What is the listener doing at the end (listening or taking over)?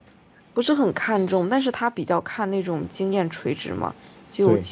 listening